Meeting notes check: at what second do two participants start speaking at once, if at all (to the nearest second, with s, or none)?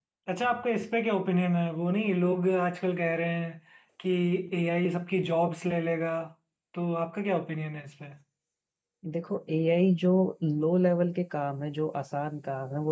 none